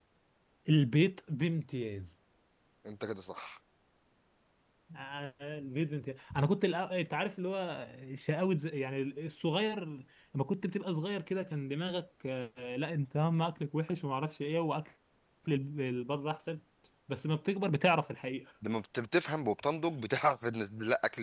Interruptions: none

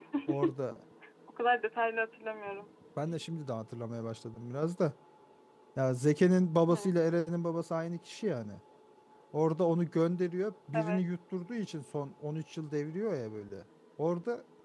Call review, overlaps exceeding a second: none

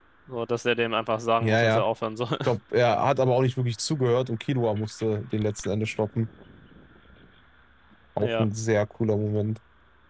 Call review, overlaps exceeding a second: none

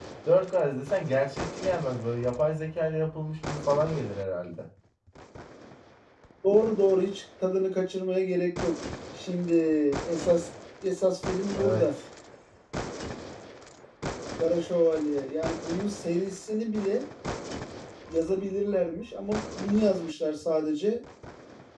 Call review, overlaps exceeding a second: none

